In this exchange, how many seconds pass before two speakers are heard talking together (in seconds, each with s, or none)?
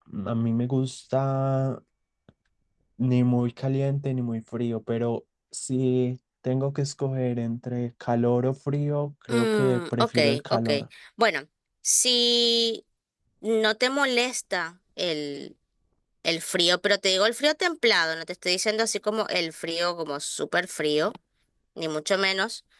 9.3 s